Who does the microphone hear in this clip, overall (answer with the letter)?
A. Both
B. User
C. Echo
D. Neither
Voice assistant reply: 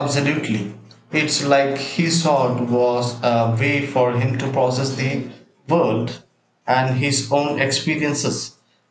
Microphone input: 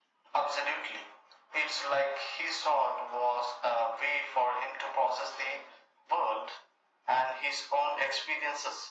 C